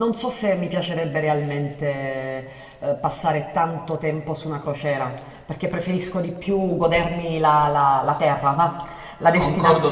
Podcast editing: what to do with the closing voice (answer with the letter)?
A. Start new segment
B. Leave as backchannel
A